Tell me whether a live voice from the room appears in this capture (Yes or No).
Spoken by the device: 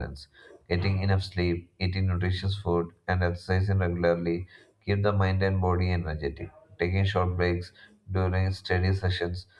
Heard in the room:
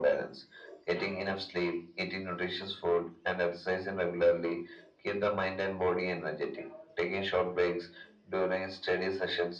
No